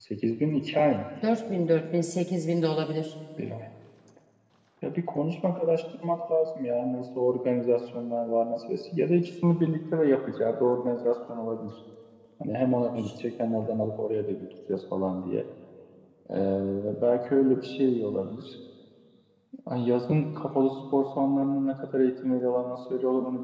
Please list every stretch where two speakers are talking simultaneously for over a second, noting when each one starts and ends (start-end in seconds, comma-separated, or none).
none